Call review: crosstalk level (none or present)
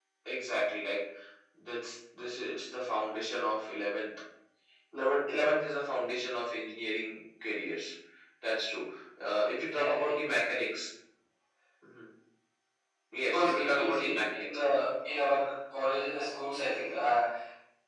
present